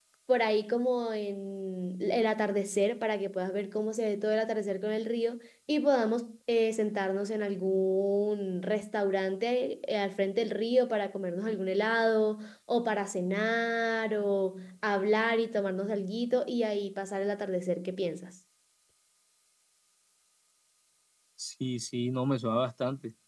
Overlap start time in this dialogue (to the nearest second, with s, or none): none